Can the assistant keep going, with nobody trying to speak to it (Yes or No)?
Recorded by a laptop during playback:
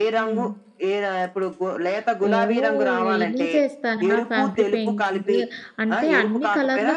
No